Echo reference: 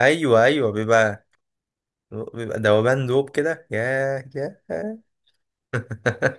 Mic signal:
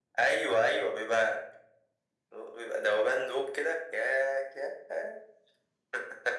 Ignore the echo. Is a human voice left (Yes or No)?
No